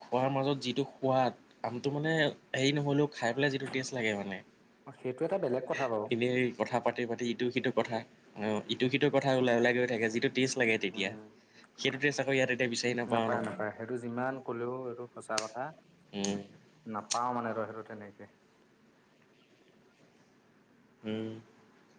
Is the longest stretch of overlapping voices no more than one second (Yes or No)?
Yes